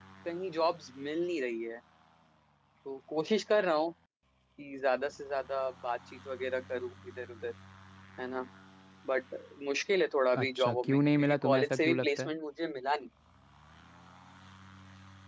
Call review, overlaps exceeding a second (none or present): present